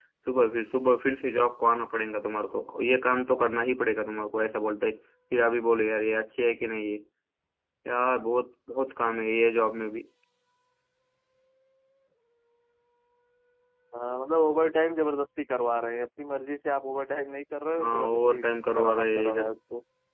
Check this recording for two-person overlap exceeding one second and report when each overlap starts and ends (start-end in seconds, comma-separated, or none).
17.8-19.5